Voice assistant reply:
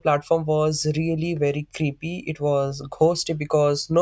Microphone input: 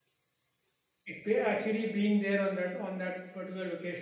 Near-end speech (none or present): present